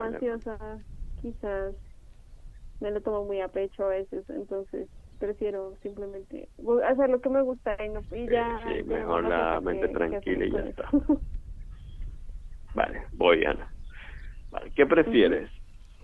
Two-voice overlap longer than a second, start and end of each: 8.3-10.9

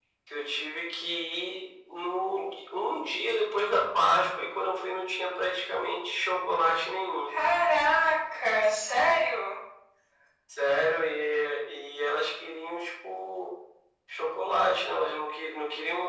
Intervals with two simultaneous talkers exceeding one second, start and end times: none

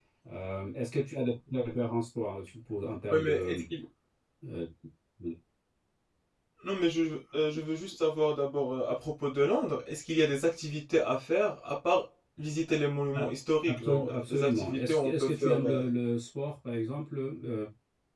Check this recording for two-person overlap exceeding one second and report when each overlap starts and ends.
13.7-15.8

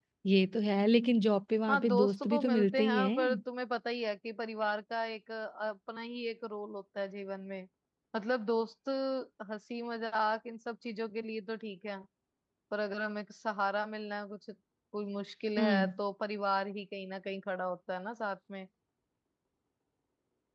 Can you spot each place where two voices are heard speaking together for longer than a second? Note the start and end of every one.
1.7-3.4

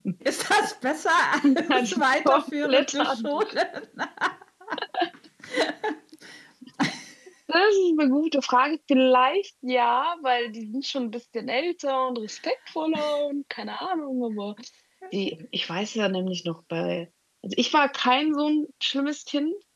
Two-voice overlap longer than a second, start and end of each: 1.7-3.5

